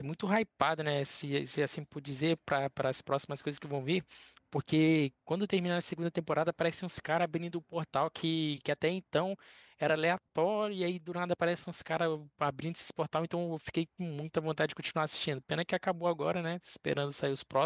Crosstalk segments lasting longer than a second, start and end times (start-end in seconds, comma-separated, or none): none